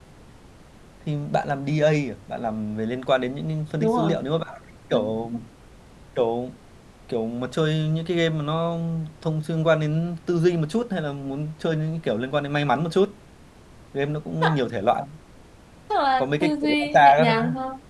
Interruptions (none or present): present